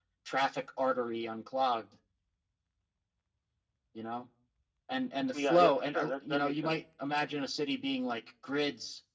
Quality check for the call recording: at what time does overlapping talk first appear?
5.3 s

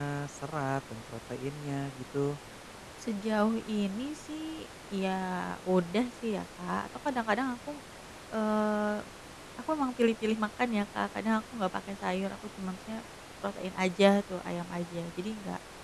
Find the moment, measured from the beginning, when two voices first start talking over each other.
none

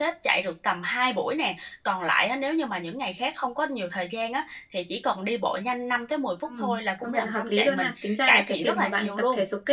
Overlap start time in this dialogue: 6.5 s

